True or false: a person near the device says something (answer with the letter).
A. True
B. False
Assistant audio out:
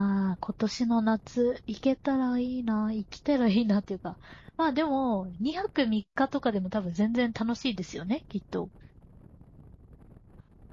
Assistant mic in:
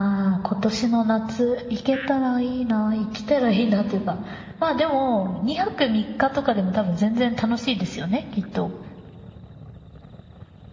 B